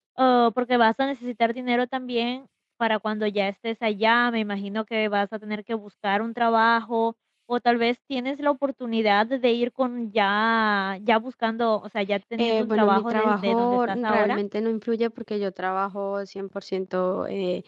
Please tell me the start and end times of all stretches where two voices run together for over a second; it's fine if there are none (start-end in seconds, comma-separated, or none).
12.4-14.4